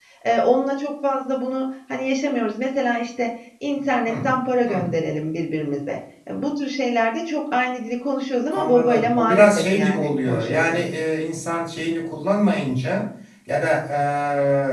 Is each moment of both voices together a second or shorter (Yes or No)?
No